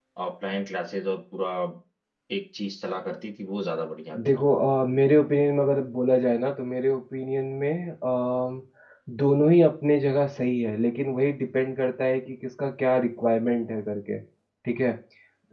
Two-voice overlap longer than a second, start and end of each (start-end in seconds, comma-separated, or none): none